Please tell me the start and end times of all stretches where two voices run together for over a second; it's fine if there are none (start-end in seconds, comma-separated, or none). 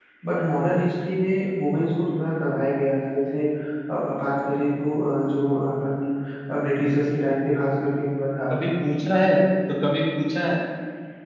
none